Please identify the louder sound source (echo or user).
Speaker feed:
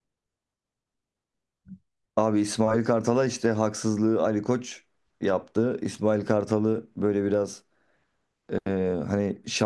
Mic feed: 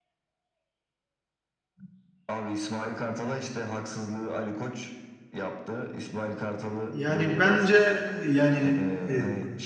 user